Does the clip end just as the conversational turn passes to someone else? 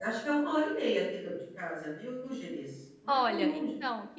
Yes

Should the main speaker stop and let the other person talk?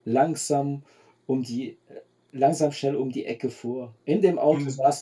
No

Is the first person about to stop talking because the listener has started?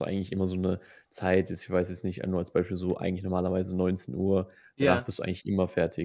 No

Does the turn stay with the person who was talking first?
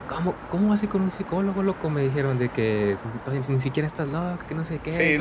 No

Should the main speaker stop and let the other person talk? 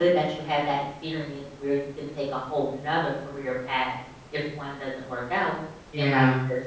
No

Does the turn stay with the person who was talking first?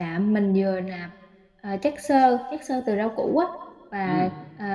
Yes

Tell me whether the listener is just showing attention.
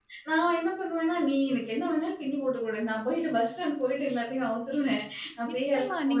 No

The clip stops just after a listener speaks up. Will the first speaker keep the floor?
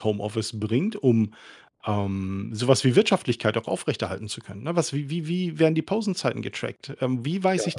Yes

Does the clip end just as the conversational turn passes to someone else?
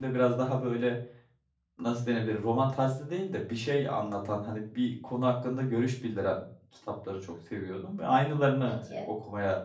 No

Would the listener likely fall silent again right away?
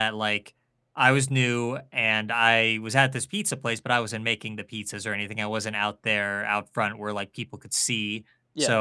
Yes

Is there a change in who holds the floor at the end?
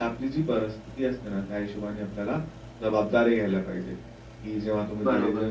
No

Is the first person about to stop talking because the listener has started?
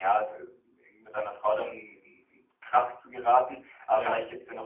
No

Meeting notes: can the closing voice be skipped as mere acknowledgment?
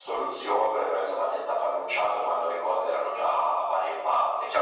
No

